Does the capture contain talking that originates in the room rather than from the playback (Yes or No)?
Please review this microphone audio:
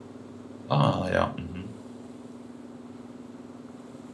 Yes